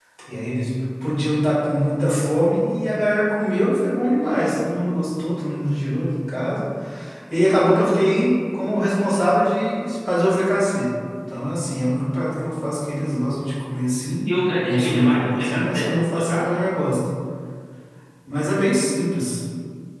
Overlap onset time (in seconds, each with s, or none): 14.6 s